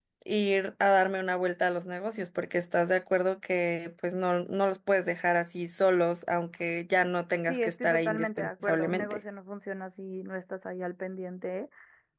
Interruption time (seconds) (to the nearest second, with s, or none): 7 s